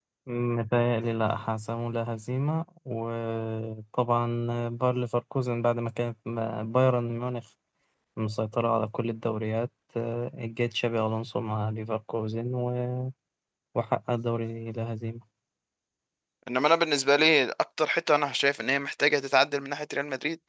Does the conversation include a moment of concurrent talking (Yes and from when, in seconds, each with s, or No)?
No